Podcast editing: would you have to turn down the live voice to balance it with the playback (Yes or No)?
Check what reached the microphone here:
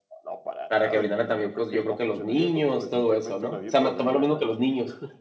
Yes